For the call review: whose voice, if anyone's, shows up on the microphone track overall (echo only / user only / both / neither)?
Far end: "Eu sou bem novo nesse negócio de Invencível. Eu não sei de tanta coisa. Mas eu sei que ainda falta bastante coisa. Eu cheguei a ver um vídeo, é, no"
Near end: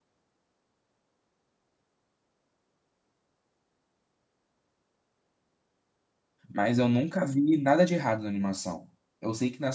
user only